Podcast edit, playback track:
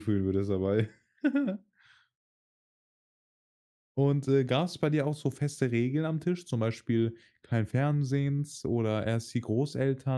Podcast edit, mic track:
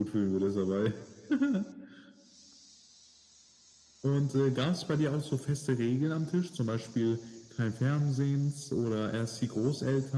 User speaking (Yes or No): No